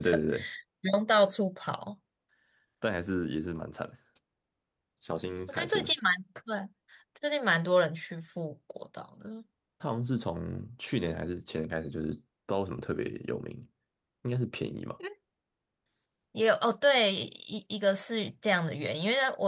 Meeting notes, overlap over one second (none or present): none